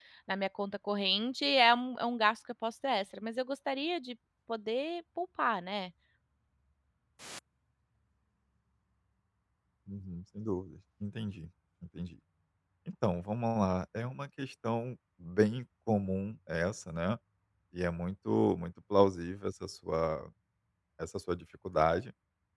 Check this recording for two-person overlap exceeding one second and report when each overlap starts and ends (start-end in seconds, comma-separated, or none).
none